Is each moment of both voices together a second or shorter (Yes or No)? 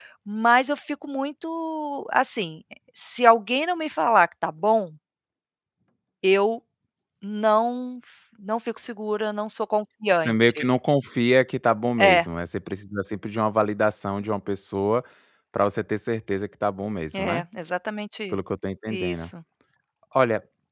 Yes